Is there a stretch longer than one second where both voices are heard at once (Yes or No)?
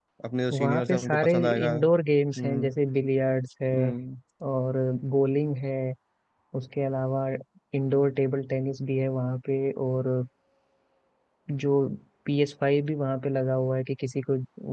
Yes